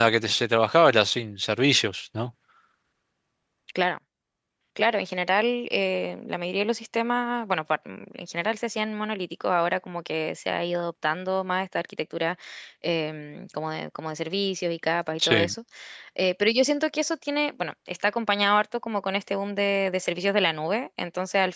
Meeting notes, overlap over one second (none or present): none